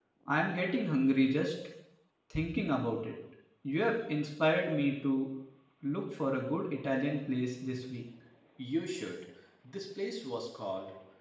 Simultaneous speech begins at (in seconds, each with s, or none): none